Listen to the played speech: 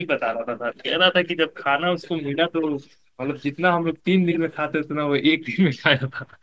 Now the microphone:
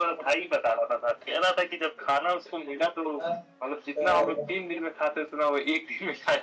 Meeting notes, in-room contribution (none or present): present